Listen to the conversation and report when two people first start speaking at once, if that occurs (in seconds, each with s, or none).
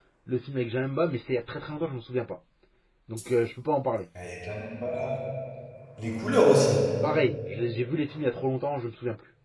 none